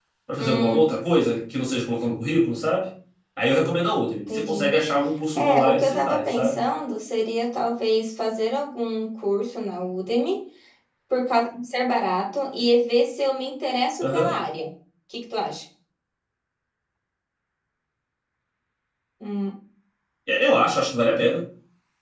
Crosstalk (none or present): present